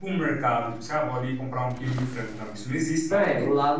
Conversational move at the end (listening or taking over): taking over